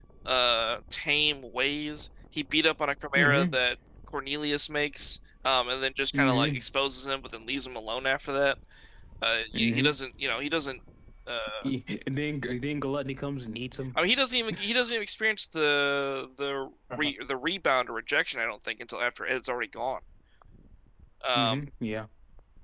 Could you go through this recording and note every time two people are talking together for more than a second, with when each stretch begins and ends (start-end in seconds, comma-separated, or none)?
none